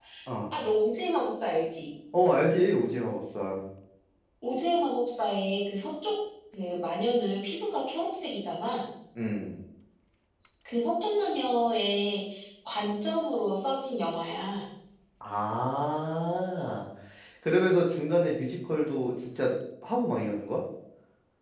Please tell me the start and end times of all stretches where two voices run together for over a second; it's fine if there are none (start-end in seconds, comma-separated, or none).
none